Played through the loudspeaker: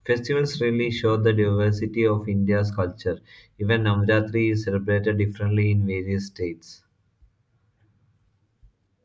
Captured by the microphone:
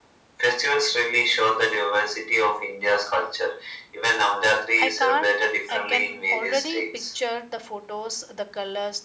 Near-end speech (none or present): present